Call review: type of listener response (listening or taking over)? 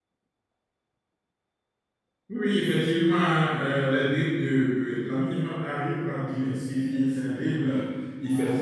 listening